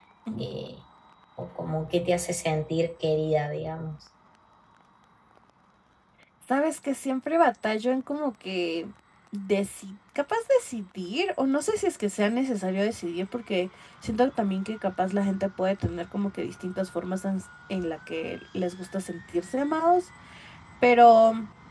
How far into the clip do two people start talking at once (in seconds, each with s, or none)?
none